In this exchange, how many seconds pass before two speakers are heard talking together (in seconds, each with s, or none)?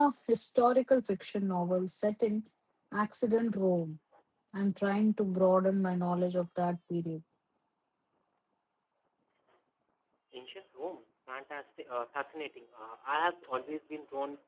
none